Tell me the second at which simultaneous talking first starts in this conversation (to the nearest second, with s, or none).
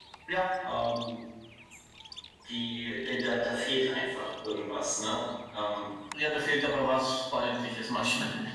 none